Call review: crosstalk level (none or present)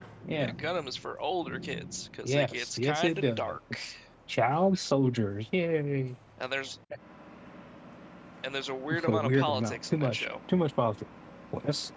present